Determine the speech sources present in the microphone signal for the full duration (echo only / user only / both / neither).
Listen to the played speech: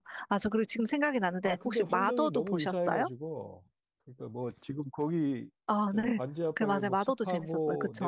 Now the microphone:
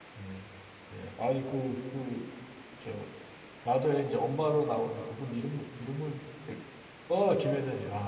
user only